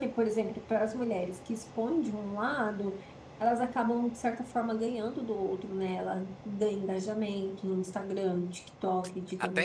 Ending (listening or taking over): listening